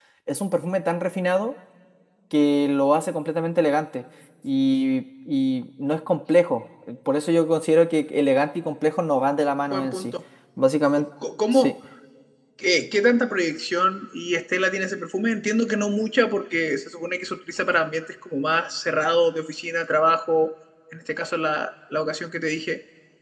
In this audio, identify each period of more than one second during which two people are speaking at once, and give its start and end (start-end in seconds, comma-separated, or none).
none